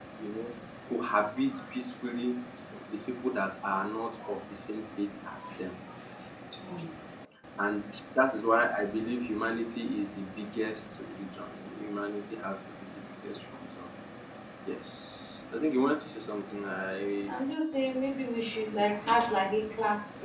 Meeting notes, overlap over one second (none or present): none